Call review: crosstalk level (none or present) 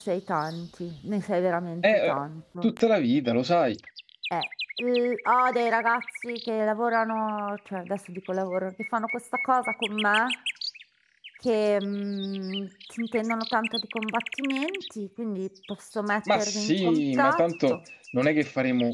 present